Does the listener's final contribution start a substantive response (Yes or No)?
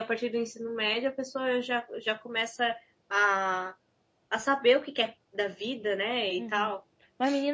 Yes